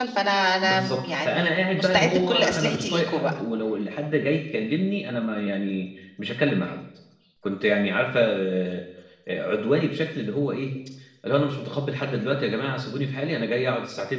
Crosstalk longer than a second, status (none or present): present